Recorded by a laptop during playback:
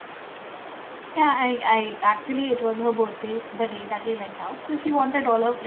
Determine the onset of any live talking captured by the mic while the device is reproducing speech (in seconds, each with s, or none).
1.2 s